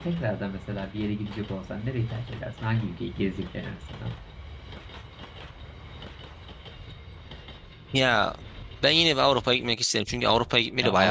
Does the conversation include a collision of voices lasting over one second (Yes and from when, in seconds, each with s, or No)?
No